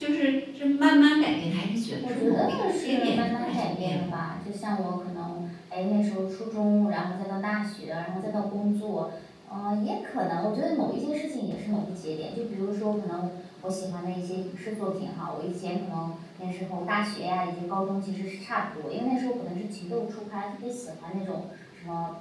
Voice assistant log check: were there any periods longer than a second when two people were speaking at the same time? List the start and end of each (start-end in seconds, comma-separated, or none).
2.0-4.1